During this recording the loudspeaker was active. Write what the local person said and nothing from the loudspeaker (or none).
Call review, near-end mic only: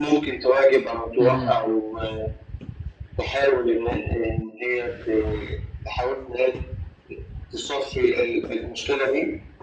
اهم،